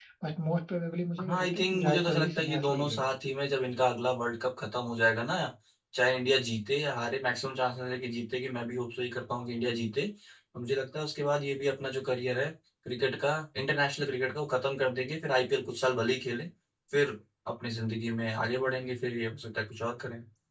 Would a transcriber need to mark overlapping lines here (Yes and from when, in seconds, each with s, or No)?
Yes, from 1.3 s